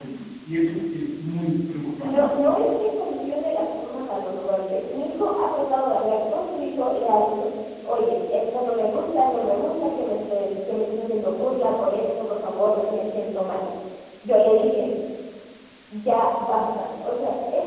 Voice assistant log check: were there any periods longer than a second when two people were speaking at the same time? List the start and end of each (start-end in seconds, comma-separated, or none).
none